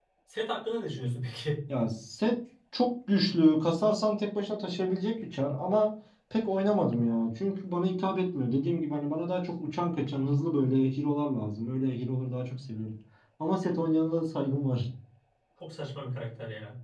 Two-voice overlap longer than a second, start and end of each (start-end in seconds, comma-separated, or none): none